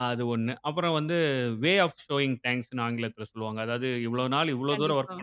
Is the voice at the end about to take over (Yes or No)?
No